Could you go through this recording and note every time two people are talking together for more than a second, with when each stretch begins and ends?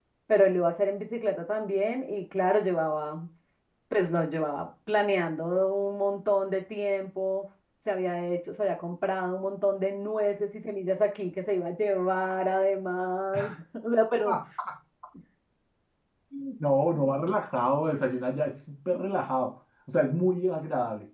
none

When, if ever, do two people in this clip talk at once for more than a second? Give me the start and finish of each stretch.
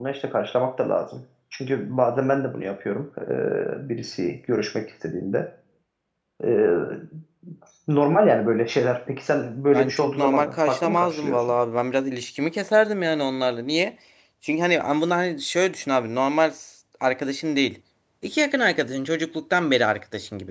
9.7-11.5

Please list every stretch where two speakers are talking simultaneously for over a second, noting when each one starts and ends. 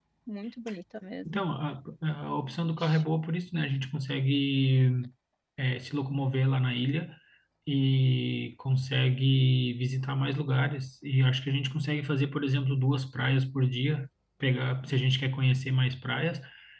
none

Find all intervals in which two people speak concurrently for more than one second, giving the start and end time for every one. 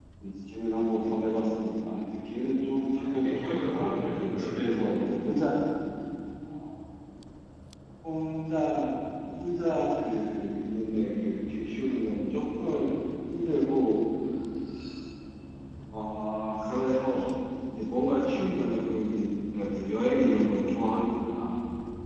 2.9-5.0

